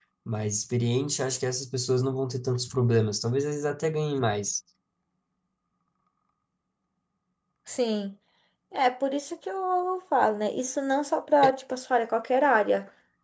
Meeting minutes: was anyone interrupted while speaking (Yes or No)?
No